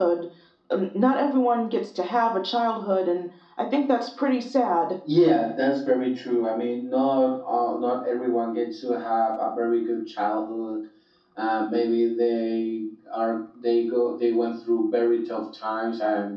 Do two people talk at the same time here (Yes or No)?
No